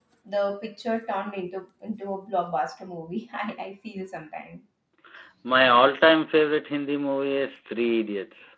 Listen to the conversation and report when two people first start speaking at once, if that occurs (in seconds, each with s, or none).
none